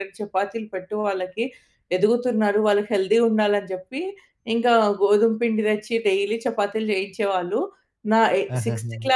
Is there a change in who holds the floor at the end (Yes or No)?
No